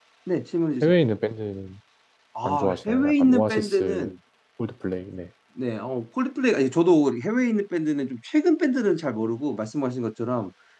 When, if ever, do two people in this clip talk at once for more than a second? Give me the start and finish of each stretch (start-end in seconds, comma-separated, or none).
2.4-4.1